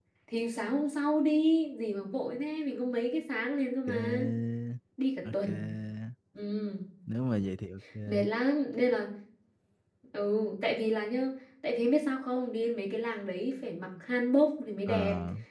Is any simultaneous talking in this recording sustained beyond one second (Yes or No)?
No